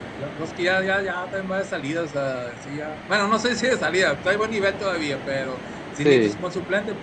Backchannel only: Yes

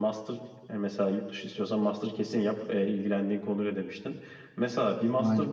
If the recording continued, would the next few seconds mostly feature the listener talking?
No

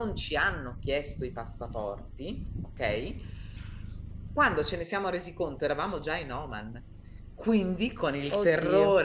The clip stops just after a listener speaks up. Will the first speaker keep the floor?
Yes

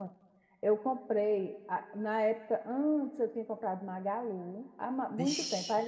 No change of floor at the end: Yes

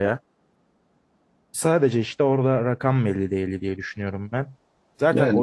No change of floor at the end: Yes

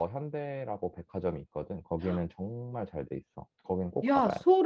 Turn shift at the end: Yes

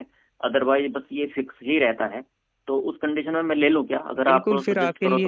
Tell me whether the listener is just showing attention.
No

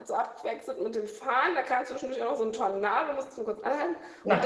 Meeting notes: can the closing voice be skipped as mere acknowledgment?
Yes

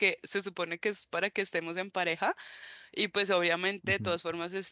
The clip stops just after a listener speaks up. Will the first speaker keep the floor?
Yes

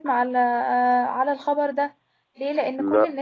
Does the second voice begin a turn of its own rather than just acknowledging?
No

